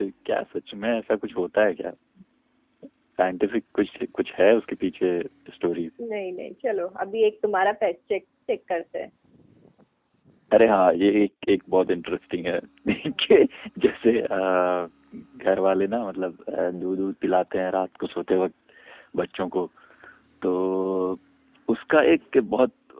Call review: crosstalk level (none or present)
none